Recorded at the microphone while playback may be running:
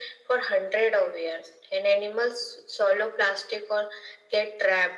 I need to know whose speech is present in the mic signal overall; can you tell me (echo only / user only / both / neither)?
echo only